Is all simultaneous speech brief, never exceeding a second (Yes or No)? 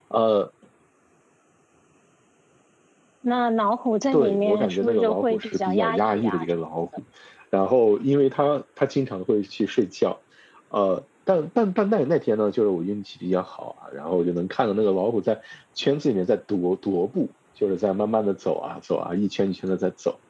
No